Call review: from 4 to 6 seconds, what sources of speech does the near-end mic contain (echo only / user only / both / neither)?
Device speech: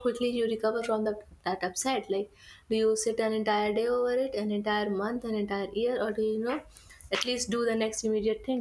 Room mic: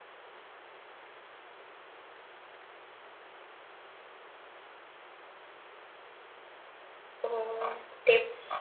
neither